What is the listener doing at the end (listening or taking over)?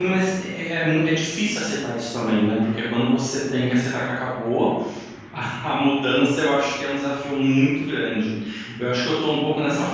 listening